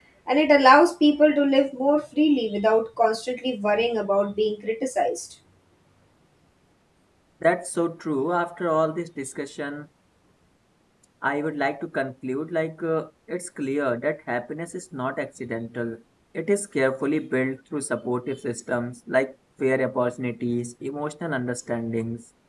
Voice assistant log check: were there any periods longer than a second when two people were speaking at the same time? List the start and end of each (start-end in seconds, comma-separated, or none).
none